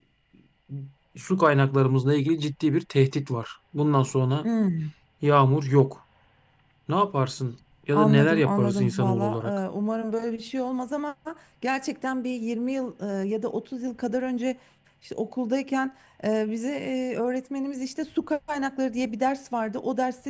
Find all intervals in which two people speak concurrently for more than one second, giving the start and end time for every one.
7.9-9.4

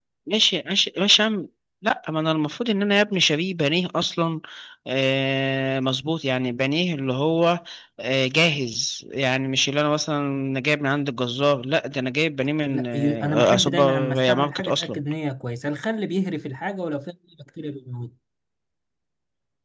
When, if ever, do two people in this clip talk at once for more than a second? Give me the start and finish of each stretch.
12.7-15.0

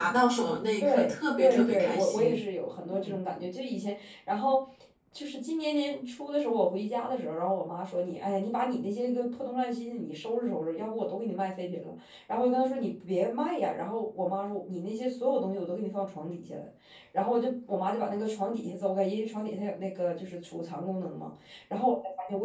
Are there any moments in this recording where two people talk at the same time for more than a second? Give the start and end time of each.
0.8-2.4

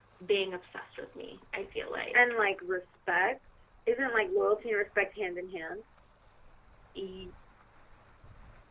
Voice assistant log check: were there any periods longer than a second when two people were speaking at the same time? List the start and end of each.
none

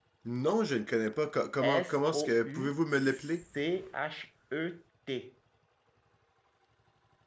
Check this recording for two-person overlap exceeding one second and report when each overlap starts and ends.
1.6-3.3

